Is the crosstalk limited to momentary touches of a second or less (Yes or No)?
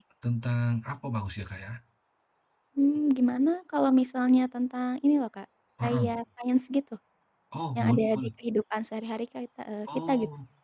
Yes